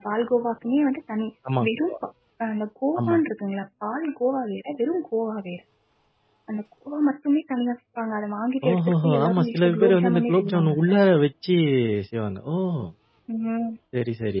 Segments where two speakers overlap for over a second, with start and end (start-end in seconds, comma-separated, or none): 8.7-10.9